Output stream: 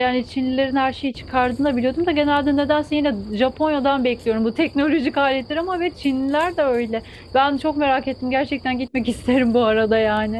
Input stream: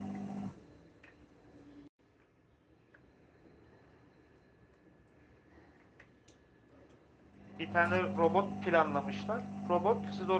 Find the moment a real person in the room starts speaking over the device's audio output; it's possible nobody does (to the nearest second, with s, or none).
8 s